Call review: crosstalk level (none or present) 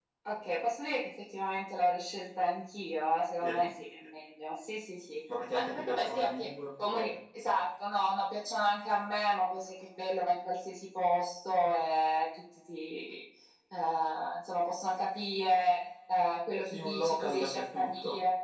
present